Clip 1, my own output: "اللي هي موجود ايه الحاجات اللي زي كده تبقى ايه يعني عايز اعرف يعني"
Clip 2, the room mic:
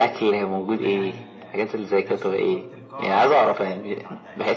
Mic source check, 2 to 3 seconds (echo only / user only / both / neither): both